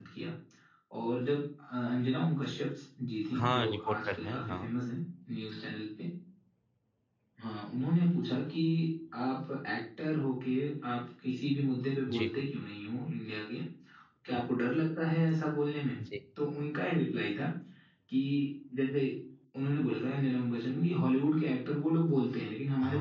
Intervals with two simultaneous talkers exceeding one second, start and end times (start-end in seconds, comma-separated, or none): 3.4-4.7